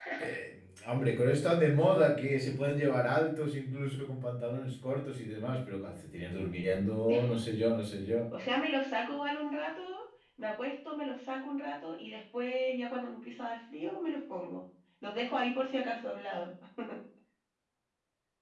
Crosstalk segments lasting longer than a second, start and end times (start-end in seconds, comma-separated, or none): none